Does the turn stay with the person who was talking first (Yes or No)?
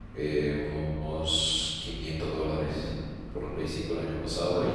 Yes